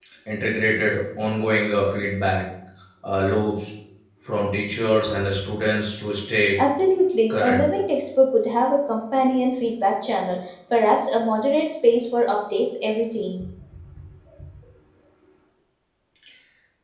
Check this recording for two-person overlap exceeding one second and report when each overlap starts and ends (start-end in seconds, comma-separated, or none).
none